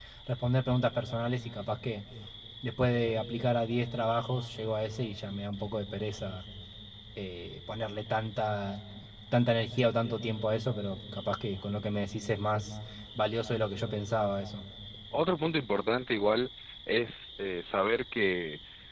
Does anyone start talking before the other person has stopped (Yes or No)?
No